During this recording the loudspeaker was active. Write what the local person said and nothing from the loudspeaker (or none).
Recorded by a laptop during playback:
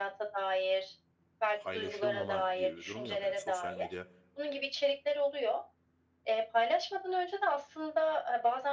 paylaşılmama gibi bir durum yok. Hani, sosyal medya